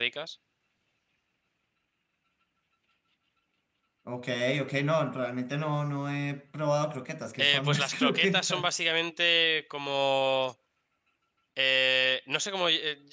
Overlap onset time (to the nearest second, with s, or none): 7 s